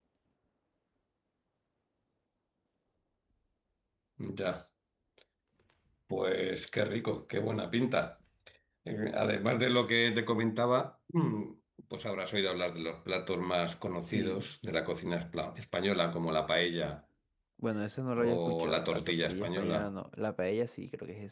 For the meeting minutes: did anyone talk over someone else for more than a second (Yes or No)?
Yes